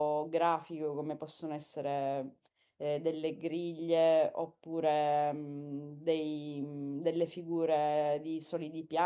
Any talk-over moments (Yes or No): No